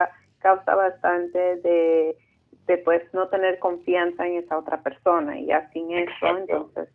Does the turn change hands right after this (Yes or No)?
No